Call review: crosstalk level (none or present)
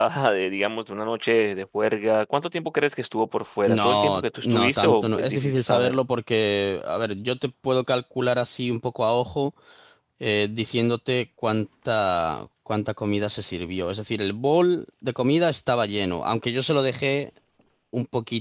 present